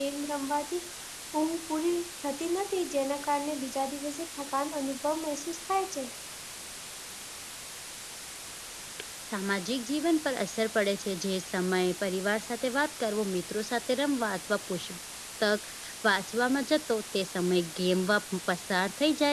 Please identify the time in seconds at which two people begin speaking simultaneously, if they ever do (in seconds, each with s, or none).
none